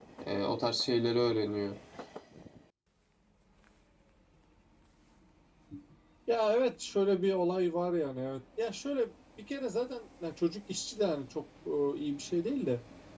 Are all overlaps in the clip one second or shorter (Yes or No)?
Yes